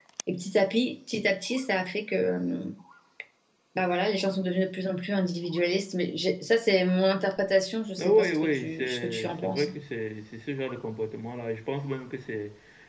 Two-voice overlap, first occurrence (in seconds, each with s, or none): 8.0 s